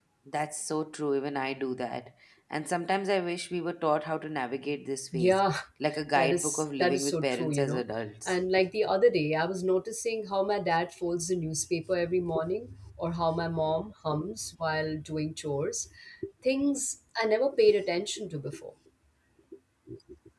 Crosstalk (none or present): present